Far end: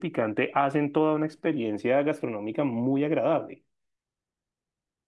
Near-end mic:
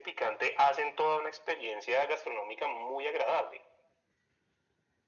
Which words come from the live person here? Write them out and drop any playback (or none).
none